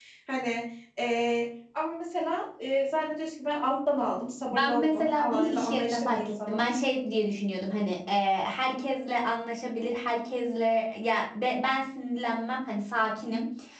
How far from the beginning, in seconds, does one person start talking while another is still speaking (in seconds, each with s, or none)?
4.5 s